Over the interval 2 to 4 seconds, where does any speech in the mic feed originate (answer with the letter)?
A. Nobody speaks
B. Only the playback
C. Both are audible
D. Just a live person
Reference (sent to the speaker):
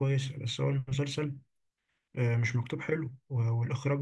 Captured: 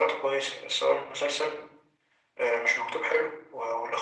B